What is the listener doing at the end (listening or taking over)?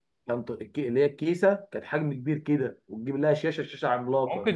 taking over